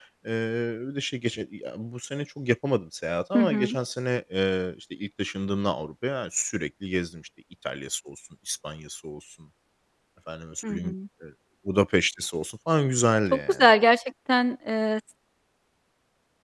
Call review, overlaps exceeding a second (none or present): none